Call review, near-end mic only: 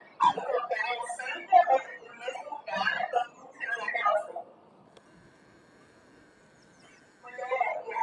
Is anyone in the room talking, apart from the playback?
No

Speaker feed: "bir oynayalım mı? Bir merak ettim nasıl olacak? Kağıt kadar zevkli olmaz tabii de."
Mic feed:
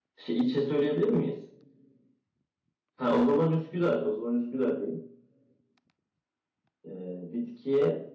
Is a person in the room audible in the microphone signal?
Yes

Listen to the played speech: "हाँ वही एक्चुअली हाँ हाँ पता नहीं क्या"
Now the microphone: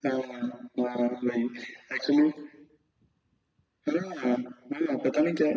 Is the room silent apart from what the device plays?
Yes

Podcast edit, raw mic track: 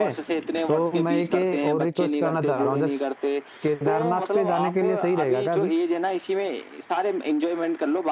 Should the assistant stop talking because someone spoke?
Yes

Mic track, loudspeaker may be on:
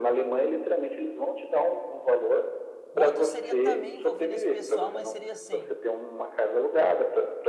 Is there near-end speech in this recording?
Yes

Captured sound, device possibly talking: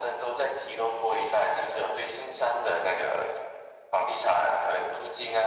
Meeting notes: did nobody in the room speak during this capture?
Yes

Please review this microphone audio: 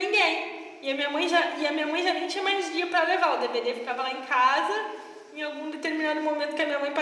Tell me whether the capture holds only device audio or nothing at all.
Yes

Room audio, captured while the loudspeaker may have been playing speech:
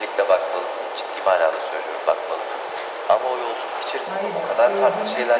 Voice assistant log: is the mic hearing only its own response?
No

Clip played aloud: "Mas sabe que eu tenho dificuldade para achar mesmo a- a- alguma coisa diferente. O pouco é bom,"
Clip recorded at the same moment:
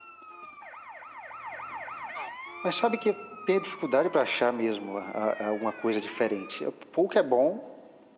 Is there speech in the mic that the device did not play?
No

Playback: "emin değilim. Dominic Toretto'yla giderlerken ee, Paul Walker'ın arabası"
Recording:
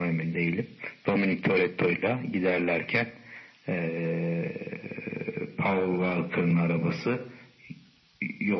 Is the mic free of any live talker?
Yes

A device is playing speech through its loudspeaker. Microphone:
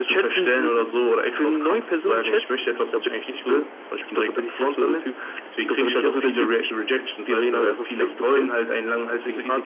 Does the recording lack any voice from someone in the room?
Yes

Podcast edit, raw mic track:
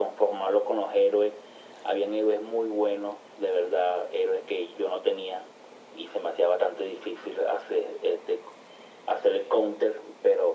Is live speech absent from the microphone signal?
Yes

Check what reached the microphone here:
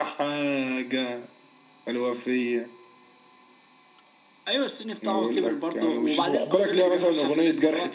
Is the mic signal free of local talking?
Yes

